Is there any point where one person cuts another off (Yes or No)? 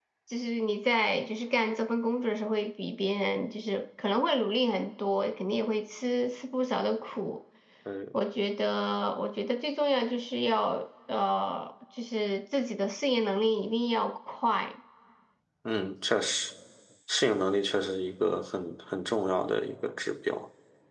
No